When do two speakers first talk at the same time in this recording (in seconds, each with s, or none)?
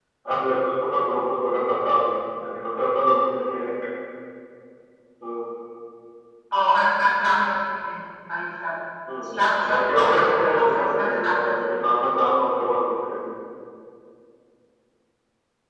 9.1 s